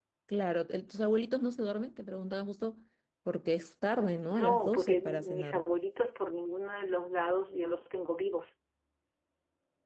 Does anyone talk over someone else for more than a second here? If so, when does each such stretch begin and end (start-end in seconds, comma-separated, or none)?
4.3-5.6